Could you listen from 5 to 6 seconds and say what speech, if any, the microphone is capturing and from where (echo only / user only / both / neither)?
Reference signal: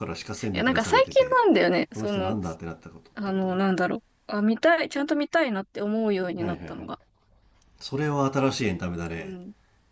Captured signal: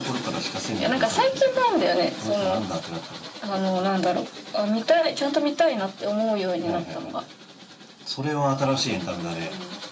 echo only